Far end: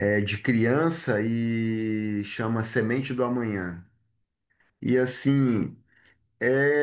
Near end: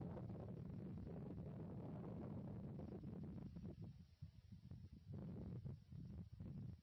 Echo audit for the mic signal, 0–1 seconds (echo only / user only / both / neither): neither